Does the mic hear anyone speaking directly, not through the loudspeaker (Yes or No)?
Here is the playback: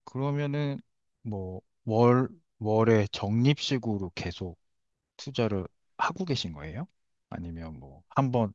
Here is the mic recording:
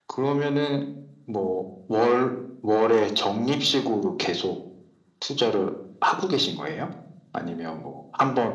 No